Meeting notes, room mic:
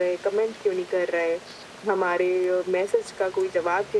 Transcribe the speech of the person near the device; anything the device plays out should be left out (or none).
none